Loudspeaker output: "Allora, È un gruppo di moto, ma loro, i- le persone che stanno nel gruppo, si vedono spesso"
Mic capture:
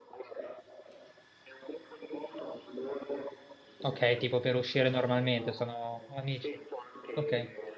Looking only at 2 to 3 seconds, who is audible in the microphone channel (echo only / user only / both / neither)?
echo only